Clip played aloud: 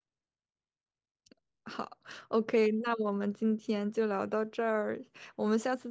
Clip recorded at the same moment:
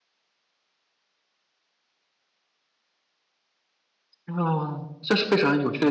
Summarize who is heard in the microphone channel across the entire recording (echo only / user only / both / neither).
user only